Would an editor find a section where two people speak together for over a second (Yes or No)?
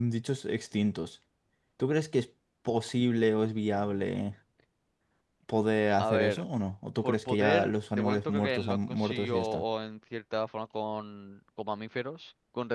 Yes